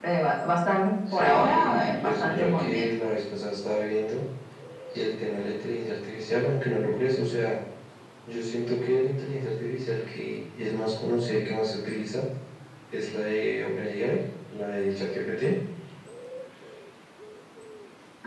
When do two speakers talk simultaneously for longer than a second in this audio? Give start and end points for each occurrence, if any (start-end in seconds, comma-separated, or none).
1.1-2.9